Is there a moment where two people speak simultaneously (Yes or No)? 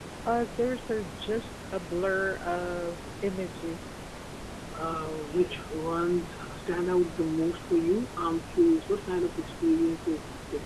No